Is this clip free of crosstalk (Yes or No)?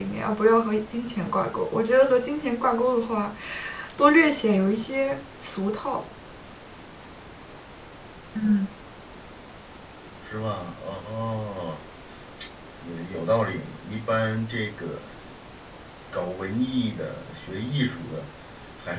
Yes